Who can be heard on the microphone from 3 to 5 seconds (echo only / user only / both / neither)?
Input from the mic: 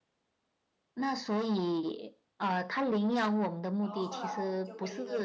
both